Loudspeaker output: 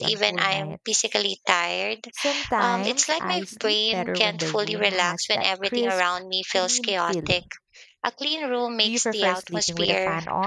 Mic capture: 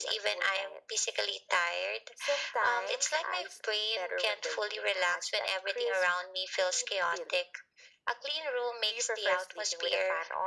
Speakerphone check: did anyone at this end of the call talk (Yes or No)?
No